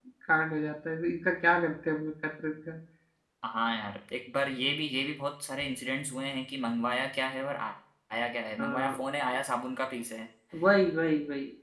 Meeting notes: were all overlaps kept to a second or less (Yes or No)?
Yes